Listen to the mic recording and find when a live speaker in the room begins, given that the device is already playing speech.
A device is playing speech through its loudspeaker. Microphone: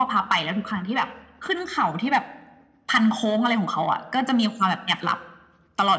none

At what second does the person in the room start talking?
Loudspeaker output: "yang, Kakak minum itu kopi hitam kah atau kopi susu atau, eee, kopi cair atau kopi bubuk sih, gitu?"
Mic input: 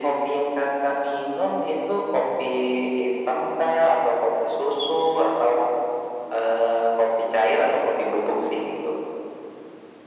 none

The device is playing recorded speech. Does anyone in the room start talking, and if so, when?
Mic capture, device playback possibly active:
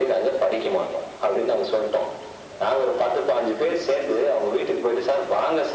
none

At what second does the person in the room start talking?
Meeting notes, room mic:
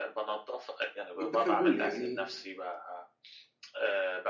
1.2 s

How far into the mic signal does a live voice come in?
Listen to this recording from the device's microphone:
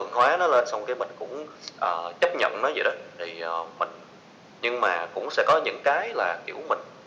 none

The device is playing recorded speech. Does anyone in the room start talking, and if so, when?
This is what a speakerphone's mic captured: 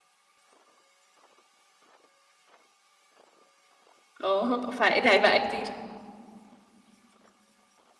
4.2 s

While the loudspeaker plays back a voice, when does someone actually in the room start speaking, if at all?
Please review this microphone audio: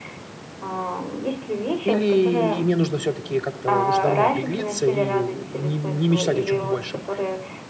1.8 s

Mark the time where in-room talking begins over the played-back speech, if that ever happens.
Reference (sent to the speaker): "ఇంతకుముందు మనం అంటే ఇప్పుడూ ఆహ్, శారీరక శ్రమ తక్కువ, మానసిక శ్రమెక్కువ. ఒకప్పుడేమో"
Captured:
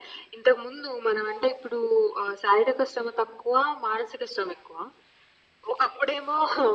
none

